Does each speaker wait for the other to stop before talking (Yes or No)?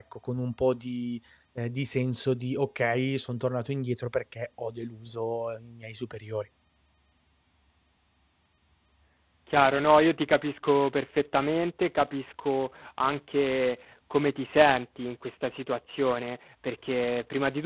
Yes